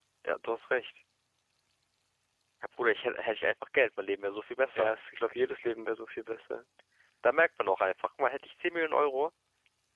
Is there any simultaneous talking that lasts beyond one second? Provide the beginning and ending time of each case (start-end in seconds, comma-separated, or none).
none